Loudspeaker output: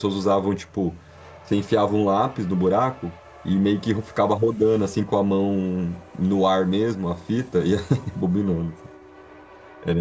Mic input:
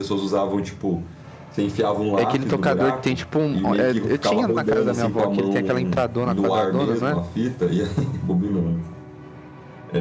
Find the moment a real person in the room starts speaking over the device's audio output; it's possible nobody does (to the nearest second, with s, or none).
2 s